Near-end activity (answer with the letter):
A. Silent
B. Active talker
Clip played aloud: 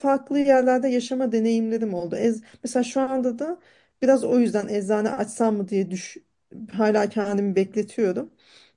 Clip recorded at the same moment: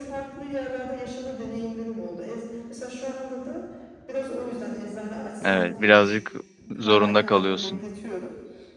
B